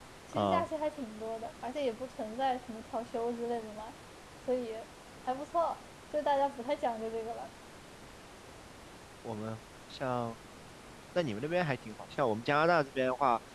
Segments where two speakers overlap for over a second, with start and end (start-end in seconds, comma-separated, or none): none